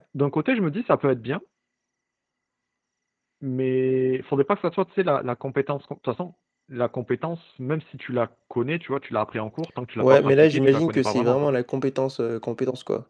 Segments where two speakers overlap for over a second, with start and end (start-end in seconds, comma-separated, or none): 10.0-11.5